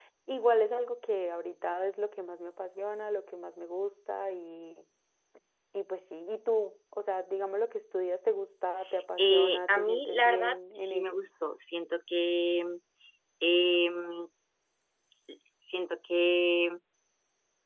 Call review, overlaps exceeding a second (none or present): present